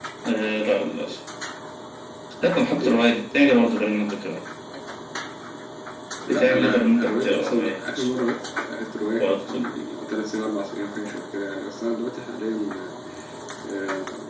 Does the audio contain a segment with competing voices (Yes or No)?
Yes